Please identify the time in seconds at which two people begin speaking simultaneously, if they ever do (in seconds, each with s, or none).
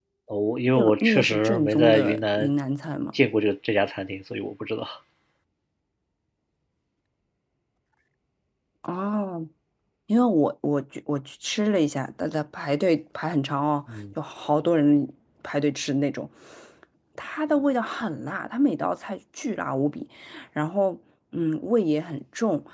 0.7 s